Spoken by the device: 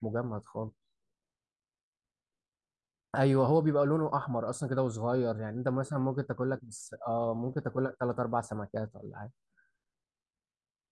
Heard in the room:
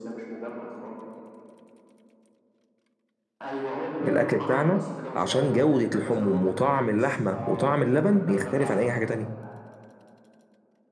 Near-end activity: present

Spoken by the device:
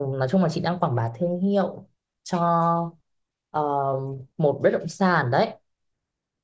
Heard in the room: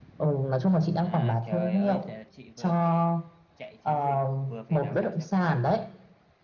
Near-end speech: present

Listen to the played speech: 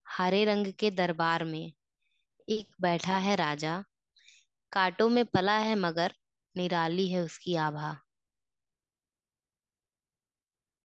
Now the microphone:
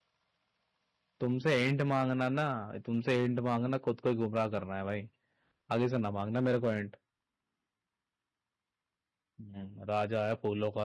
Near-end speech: present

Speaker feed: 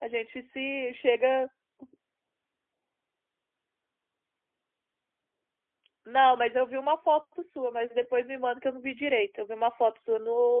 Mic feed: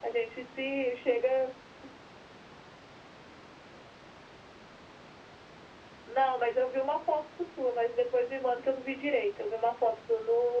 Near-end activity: none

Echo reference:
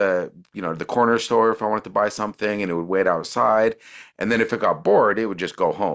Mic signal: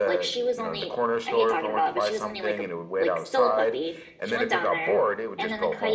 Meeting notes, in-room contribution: present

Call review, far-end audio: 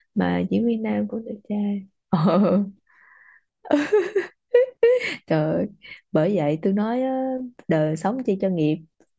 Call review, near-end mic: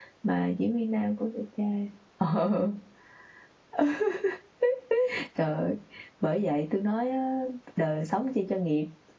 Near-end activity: none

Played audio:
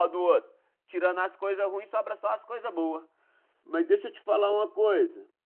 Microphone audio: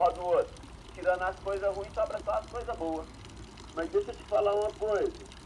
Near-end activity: none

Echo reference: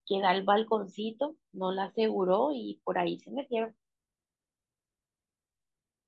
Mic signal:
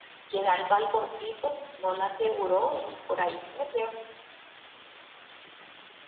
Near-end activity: none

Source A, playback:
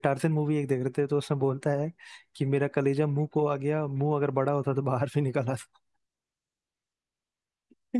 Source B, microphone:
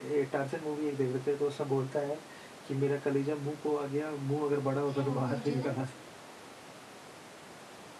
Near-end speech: present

